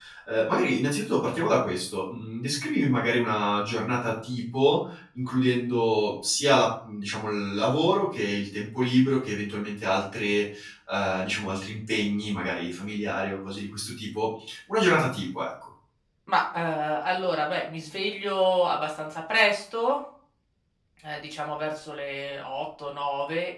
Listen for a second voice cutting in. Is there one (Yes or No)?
No